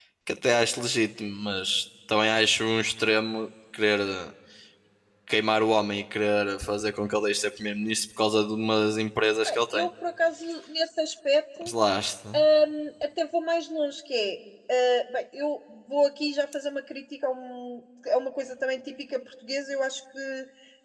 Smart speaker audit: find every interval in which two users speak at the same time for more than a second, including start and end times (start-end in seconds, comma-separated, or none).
none